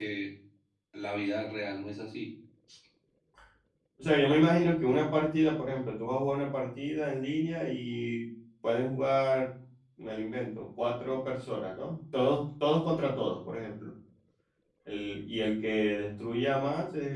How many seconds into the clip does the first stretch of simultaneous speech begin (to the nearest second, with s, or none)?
none